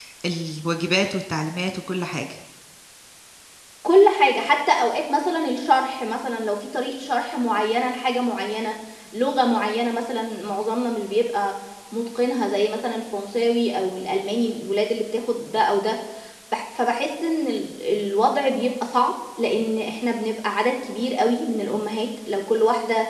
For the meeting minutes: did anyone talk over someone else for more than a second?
No

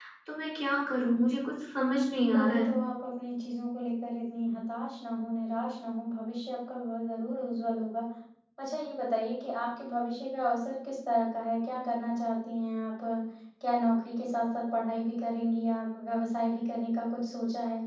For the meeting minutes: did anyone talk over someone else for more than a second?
No

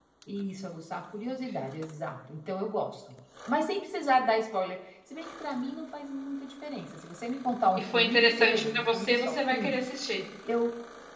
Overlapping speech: Yes, from 7.8 s

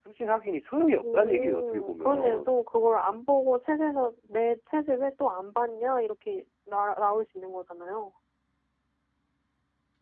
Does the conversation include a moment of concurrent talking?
Yes, from 1.0 s

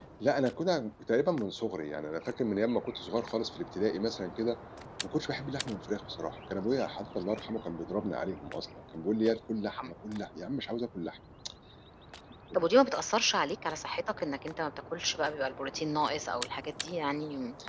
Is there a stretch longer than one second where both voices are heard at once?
No

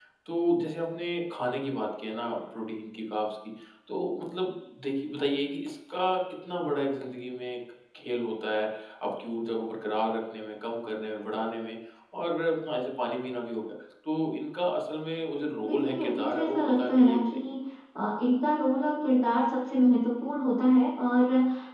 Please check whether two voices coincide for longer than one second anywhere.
Yes, from 15.6 s

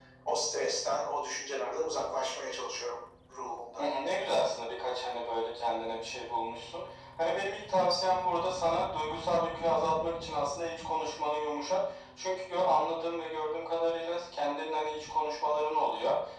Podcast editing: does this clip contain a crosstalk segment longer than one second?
No

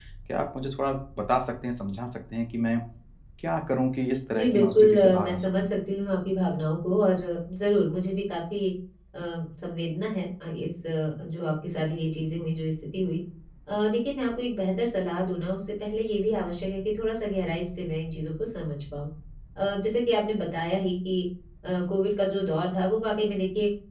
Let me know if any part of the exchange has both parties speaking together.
Yes, from 4.3 s

